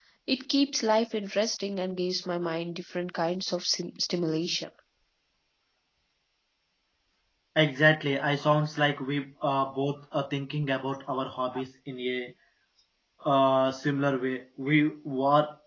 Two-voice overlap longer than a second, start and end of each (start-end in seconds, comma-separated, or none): none